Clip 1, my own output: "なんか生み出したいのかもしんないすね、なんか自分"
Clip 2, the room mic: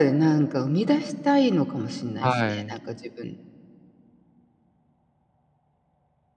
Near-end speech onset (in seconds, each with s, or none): 2.2 s